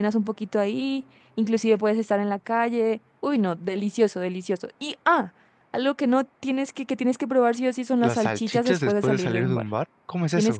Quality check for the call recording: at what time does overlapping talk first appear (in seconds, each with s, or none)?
8.0 s